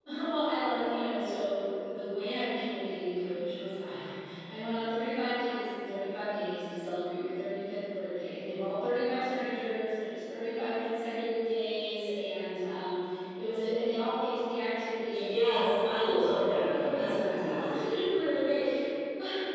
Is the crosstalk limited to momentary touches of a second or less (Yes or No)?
No